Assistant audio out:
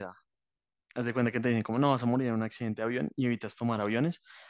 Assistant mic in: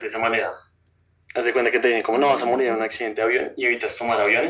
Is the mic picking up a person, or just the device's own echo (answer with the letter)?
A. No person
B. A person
B